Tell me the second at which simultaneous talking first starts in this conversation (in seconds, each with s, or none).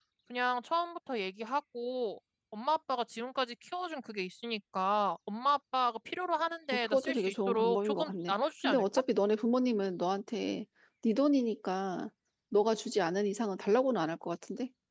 6.8 s